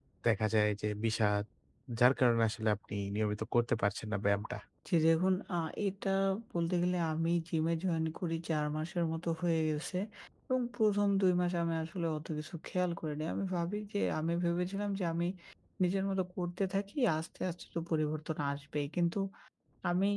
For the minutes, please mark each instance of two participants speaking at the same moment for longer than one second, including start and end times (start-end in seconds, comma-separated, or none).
none